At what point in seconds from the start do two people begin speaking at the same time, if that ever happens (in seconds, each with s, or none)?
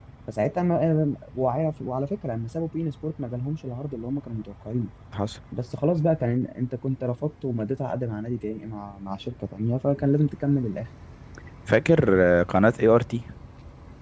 none